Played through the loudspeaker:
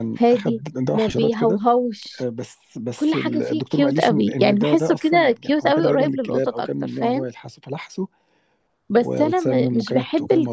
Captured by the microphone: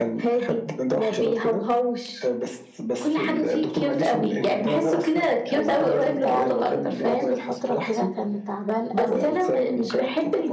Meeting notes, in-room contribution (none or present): present